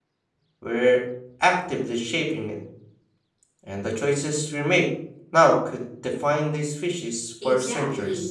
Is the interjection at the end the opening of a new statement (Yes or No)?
Yes